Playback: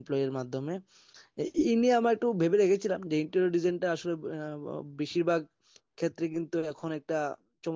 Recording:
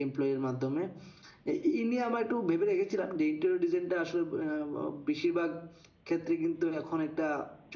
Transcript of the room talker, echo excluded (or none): none